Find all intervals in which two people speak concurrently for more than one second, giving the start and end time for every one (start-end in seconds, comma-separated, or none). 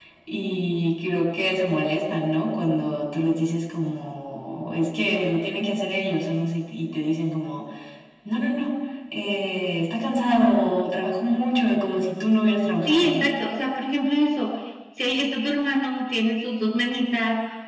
none